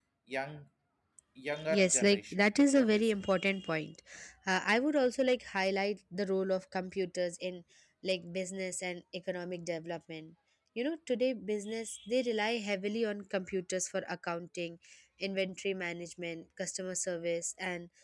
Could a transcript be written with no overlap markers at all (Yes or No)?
No